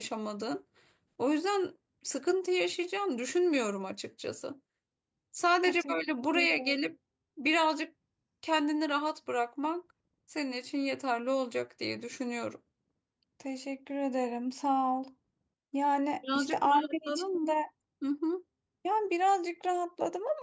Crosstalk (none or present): present